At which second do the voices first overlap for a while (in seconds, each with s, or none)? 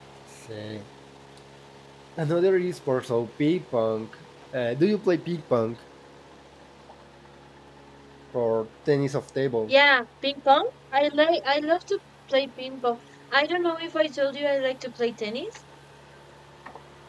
none